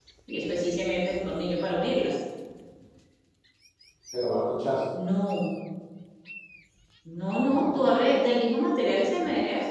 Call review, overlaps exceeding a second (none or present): none